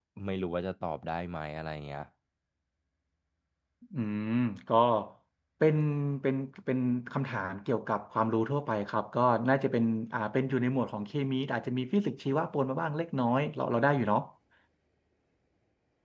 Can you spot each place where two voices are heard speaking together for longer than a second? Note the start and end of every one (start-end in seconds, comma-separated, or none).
none